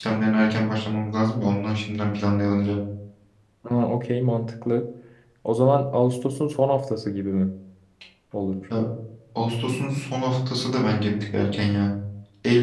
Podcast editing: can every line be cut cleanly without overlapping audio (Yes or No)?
Yes